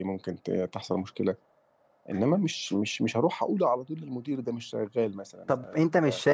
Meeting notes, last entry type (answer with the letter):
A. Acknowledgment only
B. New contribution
B